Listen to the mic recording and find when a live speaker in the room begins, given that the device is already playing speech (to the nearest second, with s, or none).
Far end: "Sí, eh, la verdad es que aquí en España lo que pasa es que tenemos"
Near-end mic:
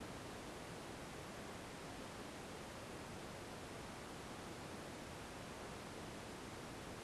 none